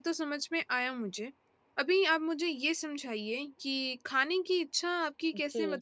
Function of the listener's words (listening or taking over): listening